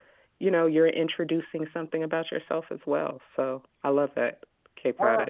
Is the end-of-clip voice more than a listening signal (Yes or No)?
Yes